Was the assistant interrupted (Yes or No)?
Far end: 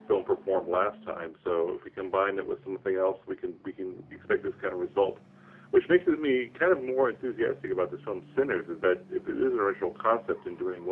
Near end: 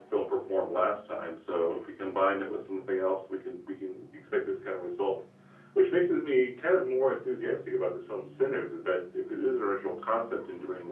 No